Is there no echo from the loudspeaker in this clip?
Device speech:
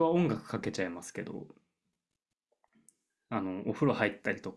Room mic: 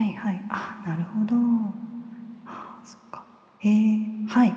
Yes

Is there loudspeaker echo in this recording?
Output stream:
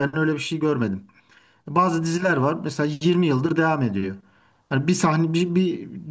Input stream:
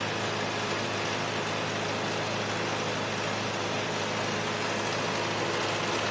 No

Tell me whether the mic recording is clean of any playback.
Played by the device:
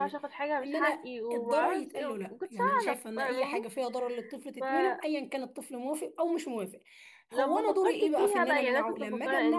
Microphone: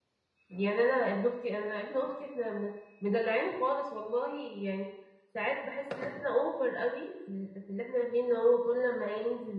Yes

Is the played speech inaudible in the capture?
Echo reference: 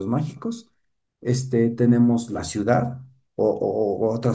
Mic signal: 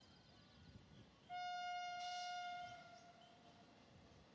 Yes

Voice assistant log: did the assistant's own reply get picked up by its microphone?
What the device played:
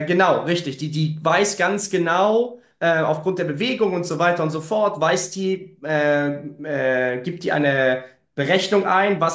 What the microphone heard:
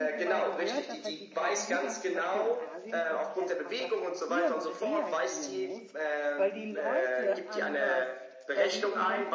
Yes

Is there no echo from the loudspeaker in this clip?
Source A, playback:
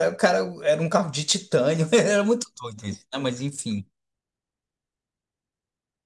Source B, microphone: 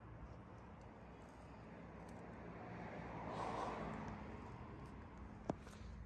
Yes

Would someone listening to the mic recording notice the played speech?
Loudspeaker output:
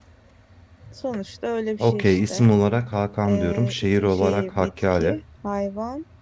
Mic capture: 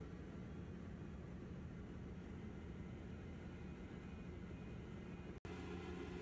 No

